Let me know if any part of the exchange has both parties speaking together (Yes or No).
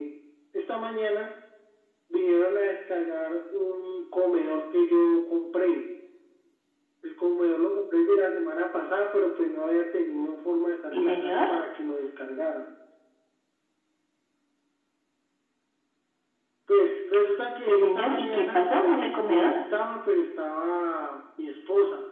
Yes